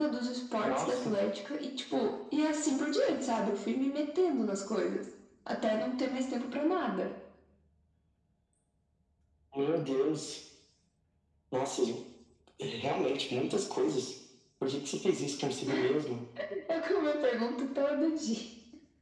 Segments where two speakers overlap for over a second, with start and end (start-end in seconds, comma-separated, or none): none